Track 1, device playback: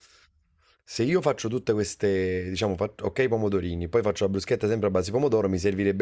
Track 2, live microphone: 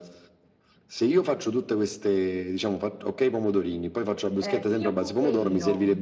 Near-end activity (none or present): present